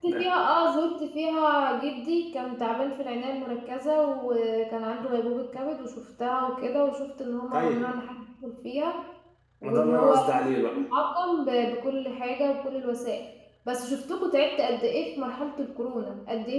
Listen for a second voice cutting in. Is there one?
Yes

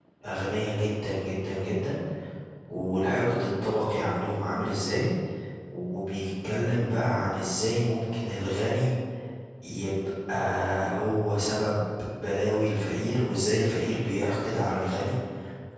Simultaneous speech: No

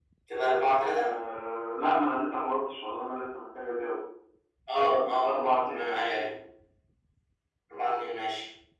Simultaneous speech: Yes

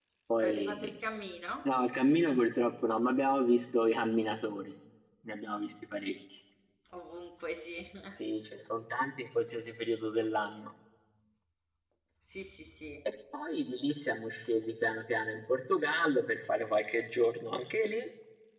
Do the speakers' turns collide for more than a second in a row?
No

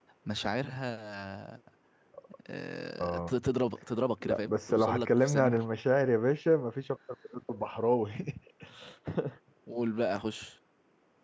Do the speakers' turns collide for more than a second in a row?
Yes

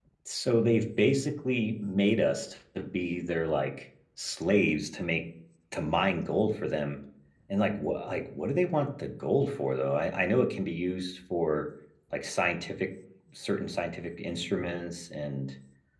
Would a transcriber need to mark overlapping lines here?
No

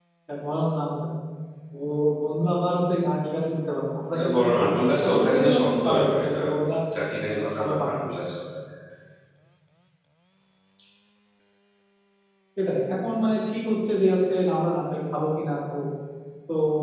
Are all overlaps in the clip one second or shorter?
No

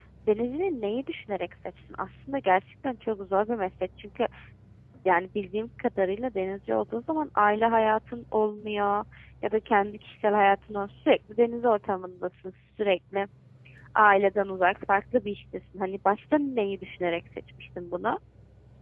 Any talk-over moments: No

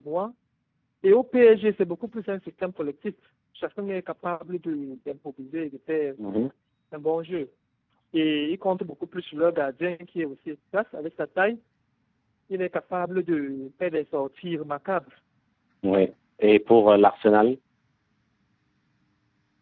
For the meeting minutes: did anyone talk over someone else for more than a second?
No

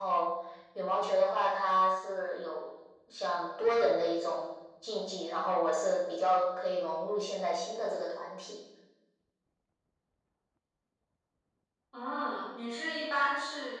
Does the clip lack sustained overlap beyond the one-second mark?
Yes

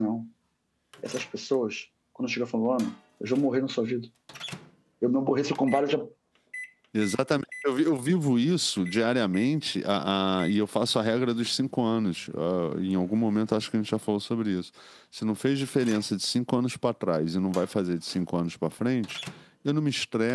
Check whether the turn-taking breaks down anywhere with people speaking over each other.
No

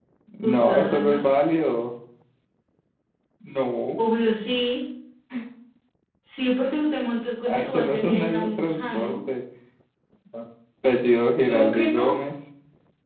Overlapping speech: Yes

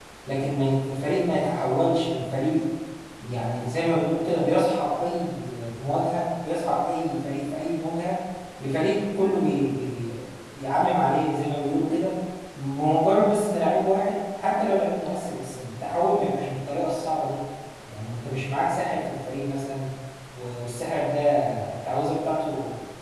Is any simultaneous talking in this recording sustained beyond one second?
No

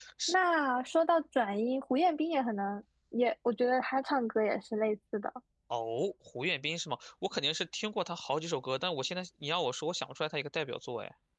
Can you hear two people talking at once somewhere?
No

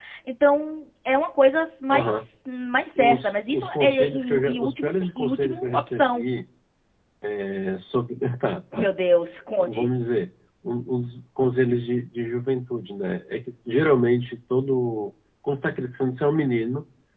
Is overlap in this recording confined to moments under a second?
No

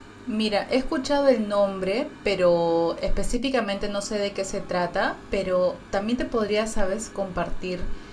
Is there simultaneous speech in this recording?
No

